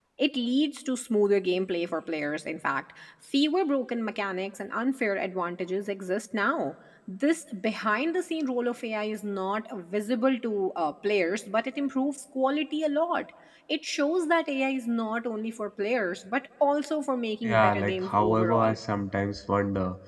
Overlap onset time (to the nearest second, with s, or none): 17 s